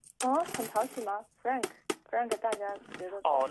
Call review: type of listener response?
taking over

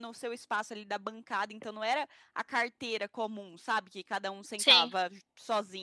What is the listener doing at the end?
listening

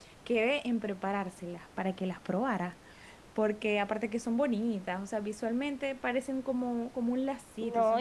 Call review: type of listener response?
taking over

